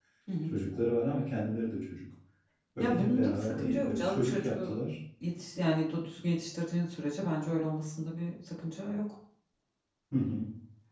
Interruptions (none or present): present